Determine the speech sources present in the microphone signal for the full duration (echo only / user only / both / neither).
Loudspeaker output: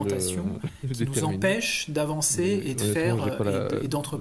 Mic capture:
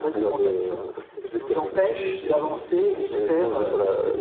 both